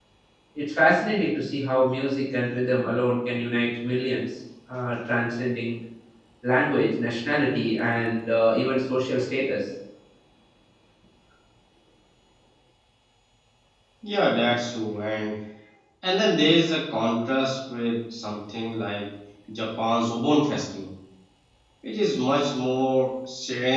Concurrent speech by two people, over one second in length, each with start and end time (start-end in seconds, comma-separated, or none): none